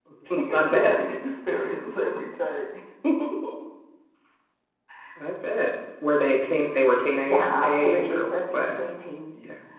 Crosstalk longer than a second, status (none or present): present